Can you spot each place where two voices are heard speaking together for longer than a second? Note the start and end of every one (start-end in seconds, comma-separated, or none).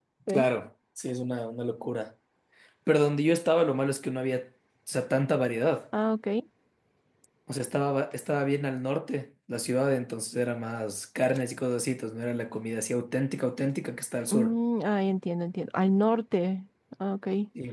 none